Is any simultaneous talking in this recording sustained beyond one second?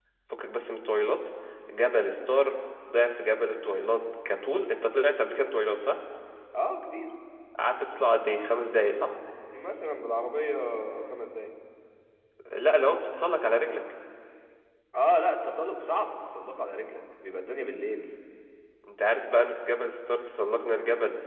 No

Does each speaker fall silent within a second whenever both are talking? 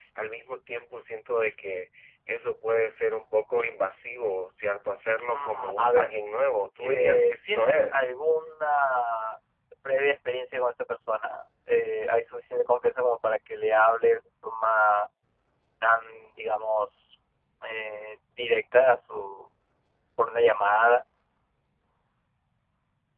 No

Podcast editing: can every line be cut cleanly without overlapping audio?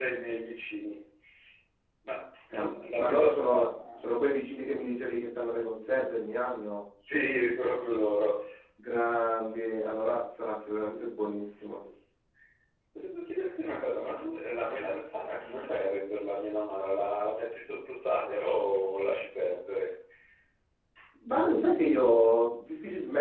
No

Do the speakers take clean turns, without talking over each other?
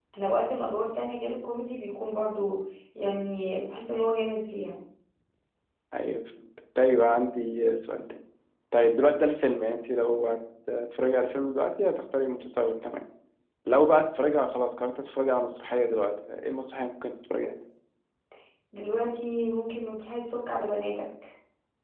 Yes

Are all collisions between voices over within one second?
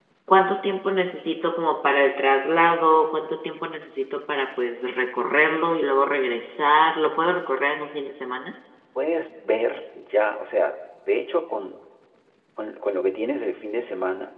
Yes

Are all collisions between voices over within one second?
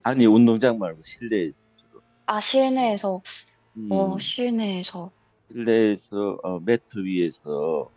Yes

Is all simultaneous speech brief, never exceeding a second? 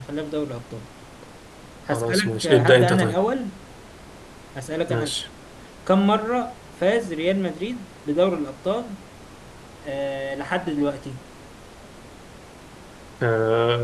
No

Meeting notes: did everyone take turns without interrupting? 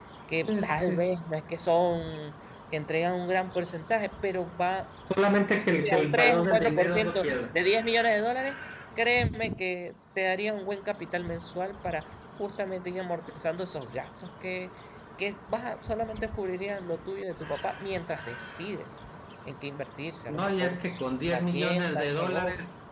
No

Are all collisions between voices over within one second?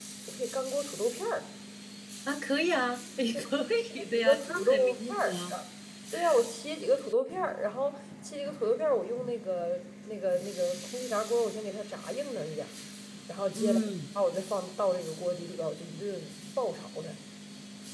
No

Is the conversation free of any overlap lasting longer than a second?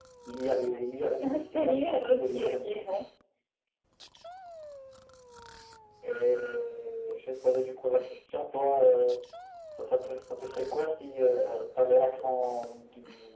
No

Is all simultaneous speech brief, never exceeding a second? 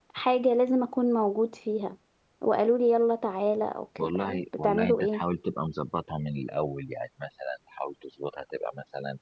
No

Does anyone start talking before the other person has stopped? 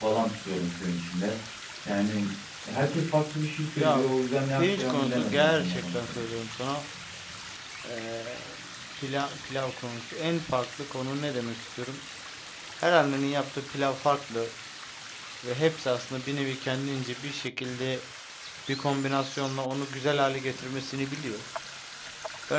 Yes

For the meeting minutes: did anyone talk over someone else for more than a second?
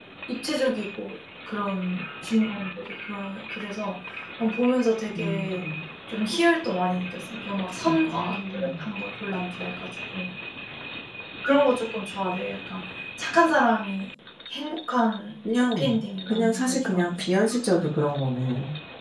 Yes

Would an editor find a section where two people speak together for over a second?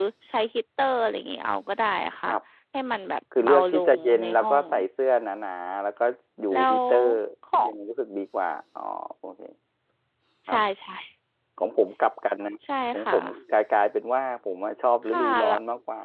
Yes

